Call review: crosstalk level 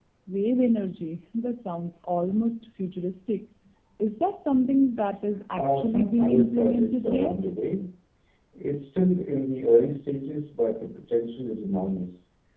present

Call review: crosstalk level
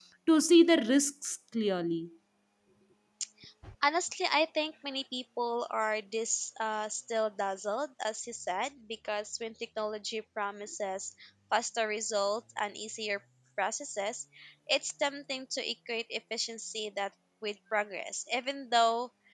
none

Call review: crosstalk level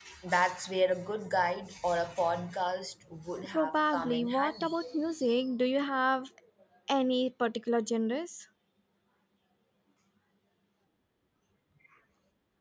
present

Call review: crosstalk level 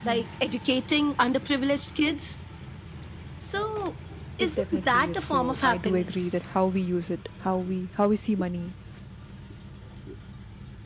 present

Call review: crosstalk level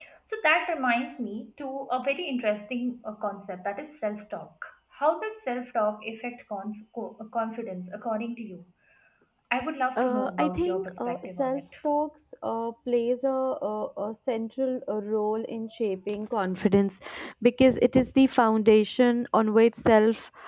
present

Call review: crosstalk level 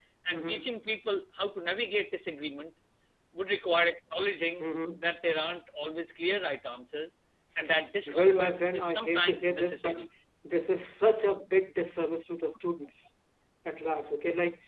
present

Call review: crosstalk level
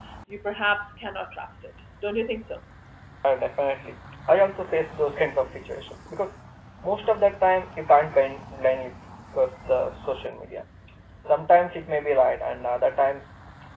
none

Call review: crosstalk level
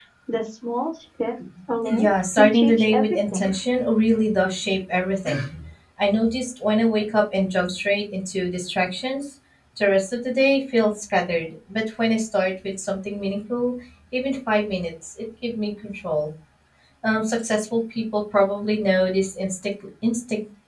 present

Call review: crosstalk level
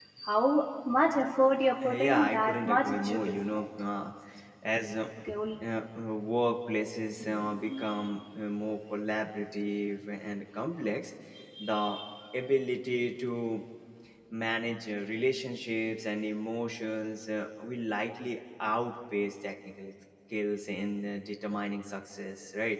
present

